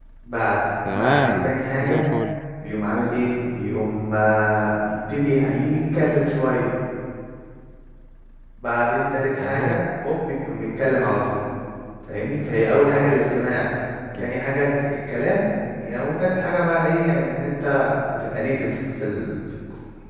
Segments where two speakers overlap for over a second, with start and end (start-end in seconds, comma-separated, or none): 0.9-2.1